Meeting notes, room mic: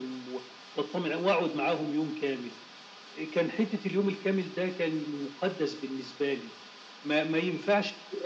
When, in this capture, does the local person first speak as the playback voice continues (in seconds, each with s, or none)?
none